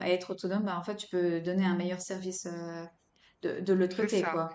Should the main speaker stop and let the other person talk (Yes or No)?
Yes